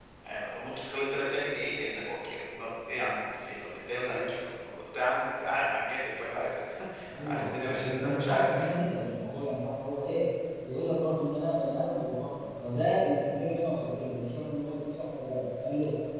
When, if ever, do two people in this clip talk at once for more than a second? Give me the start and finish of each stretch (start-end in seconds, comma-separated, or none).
7.3-8.5